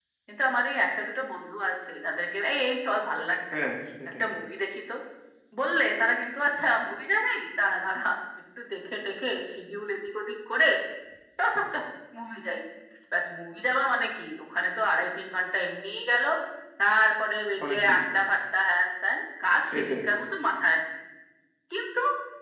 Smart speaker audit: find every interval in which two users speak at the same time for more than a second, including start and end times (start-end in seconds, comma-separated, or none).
none